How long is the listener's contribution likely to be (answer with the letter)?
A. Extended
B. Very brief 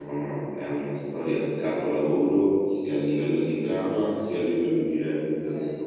A